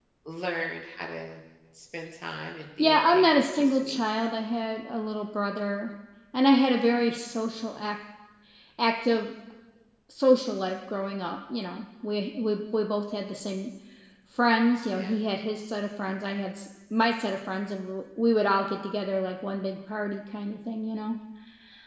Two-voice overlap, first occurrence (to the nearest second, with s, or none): 3 s